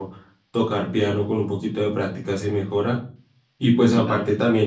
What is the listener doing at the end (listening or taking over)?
listening